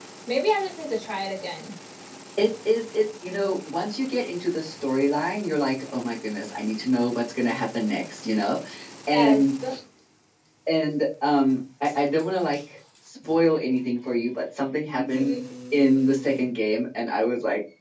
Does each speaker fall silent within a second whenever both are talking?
Yes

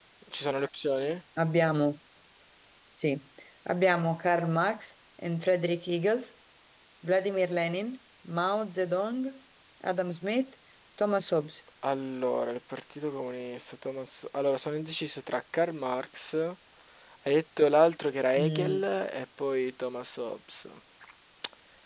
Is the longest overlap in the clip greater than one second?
No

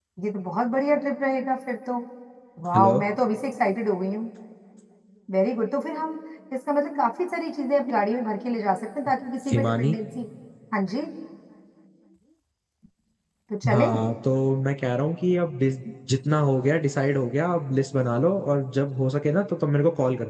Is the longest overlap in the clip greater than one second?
No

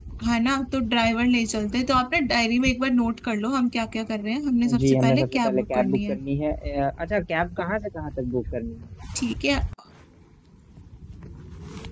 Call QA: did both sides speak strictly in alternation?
No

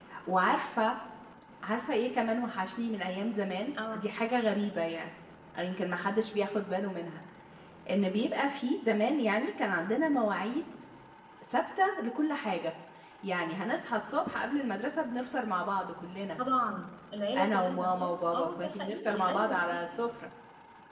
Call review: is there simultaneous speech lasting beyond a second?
Yes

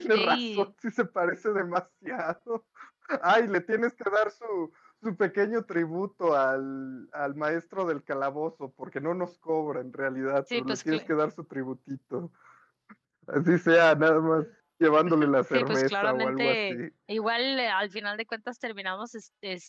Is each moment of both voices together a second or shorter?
No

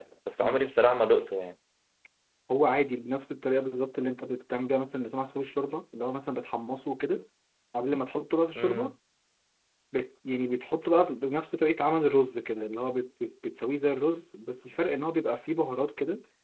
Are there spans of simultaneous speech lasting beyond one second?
No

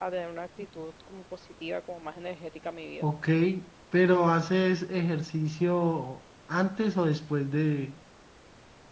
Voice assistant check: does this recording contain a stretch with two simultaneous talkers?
No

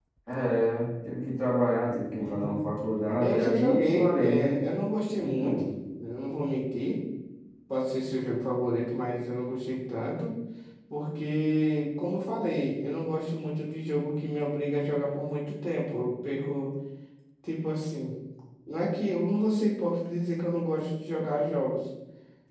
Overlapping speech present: Yes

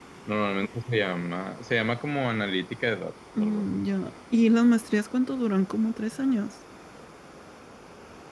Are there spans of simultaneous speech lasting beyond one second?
No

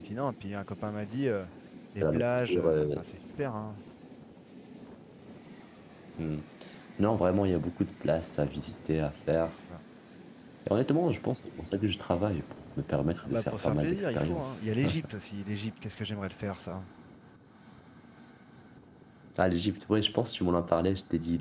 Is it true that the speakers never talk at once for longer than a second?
No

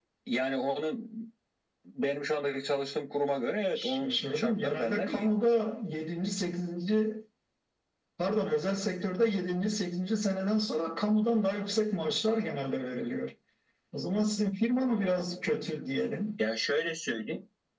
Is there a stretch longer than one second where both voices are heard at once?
Yes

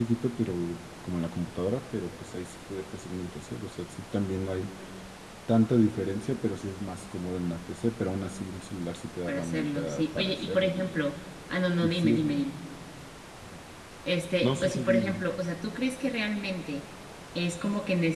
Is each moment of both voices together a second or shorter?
No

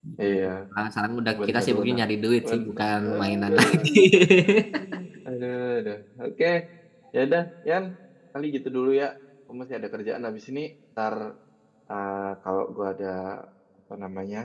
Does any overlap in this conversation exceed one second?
Yes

